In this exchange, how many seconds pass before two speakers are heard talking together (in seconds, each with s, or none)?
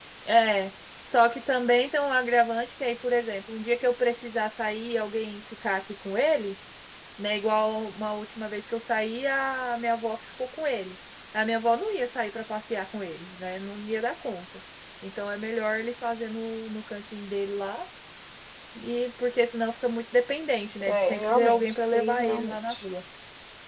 20.8 s